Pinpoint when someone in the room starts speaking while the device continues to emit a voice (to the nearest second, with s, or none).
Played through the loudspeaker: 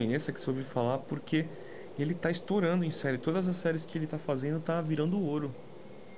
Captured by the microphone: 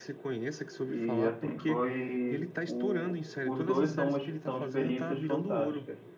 1 s